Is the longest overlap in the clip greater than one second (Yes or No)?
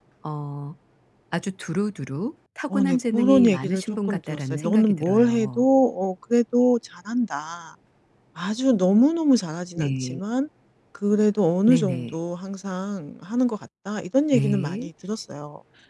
Yes